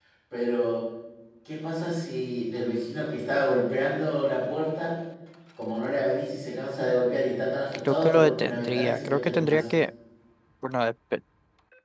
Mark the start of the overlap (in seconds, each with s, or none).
7.8 s